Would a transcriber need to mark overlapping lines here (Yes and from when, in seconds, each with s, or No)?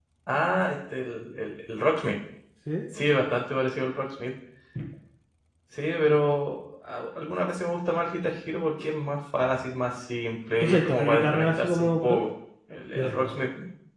Yes, from 10.6 s